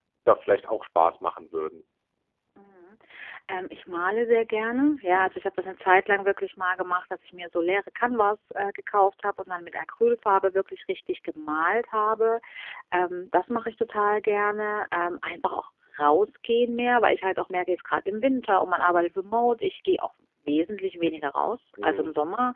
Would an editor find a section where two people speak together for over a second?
No

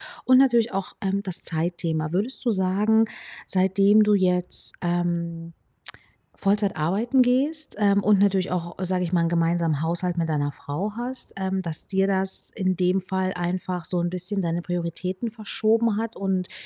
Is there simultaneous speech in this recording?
No

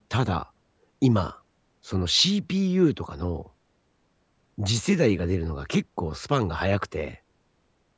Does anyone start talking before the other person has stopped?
No

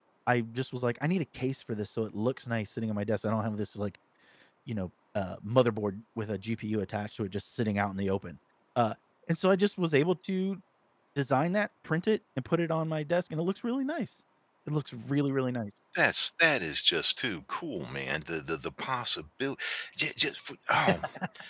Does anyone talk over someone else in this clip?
No

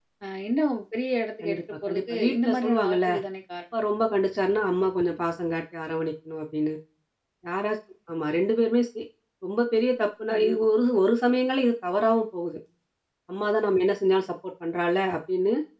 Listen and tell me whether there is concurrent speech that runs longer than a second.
Yes, from 1.4 s

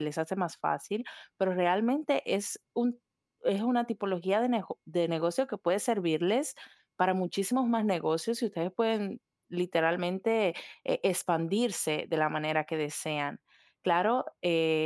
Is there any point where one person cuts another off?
No

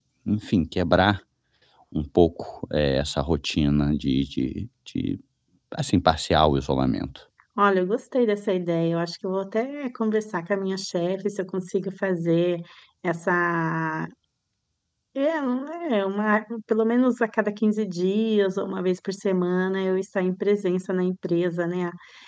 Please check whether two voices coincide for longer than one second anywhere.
No

